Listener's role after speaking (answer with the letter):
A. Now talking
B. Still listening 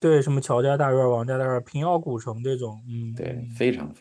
A